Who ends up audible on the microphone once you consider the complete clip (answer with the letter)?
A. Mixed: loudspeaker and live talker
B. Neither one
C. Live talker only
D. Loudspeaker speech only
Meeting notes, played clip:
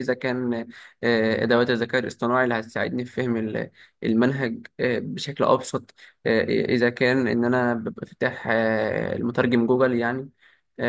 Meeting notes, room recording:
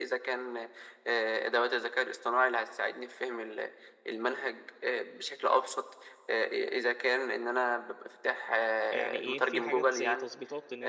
A